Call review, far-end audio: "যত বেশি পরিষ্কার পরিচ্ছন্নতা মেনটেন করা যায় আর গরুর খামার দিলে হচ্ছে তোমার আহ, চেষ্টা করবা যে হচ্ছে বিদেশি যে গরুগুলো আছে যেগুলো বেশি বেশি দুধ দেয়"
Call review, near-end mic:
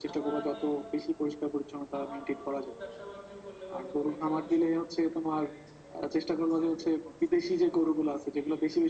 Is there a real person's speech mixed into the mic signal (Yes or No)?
Yes